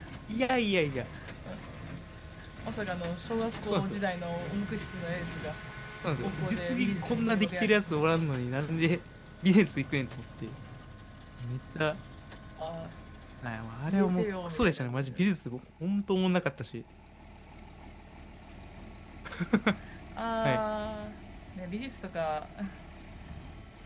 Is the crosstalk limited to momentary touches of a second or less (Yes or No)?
No